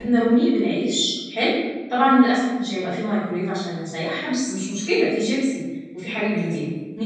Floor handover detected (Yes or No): No